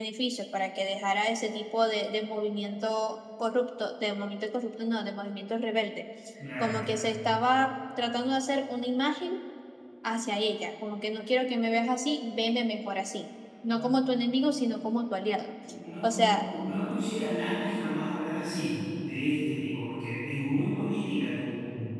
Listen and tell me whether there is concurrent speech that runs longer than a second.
No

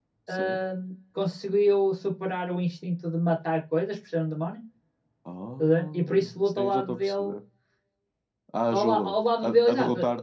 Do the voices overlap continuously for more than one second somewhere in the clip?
Yes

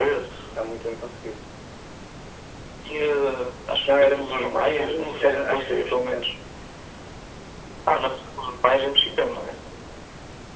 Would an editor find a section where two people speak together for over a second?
Yes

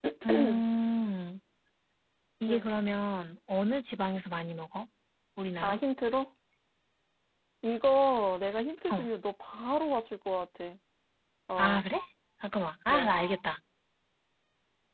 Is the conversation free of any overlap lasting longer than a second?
Yes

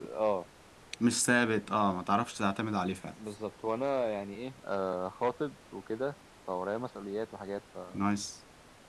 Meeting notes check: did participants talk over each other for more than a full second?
No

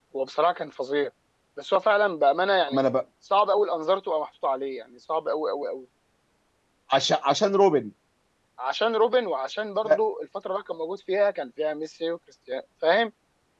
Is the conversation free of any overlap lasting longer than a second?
Yes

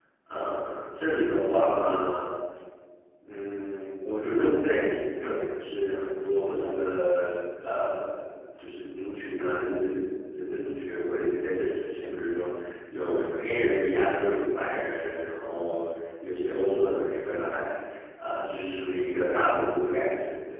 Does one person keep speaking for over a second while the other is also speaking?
No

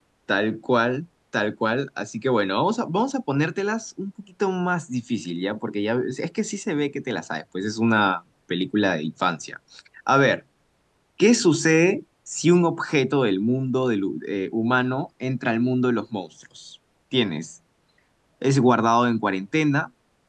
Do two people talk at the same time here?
No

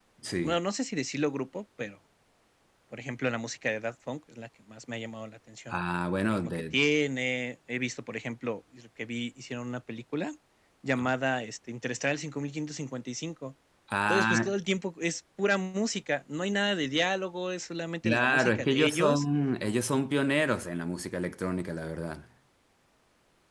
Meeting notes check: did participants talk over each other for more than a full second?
Yes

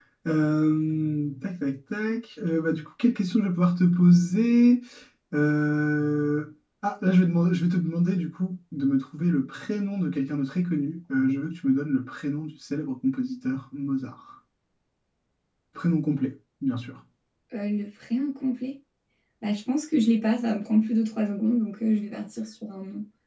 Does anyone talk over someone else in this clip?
No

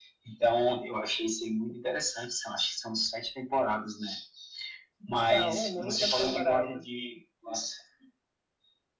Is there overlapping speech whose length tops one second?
Yes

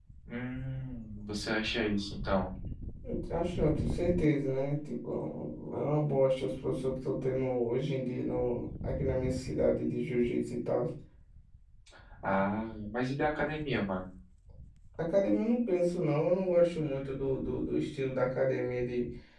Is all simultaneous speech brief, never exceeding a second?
Yes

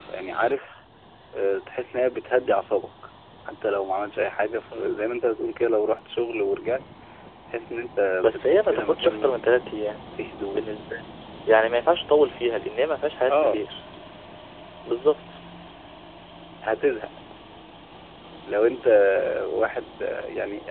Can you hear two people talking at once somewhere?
Yes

